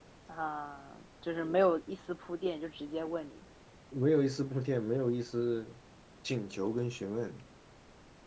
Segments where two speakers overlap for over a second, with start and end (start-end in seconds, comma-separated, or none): none